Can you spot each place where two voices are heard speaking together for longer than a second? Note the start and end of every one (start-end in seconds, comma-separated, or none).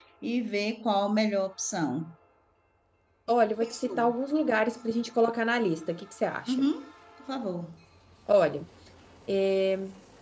none